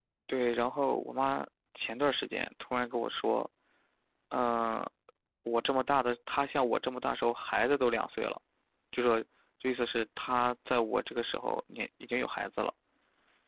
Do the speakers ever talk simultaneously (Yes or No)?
No